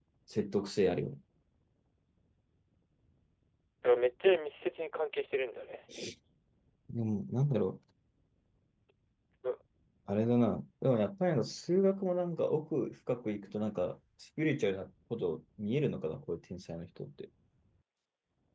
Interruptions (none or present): none